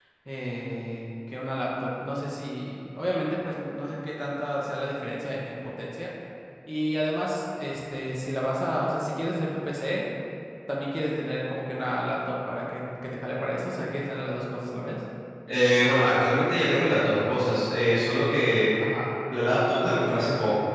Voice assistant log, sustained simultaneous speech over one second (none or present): none